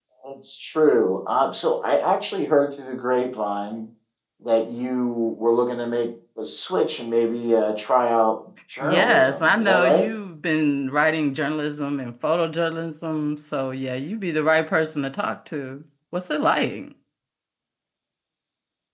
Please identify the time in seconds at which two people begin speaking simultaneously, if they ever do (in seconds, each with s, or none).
8.8 s